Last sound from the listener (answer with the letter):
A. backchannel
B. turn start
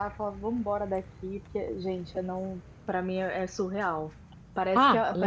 A